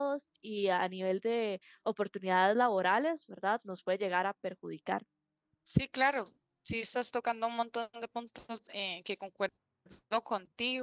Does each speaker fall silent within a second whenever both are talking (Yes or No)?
Yes